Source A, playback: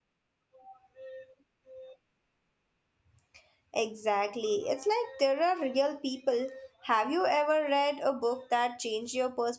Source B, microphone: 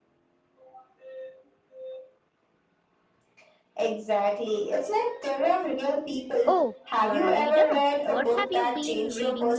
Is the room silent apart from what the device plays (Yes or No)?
No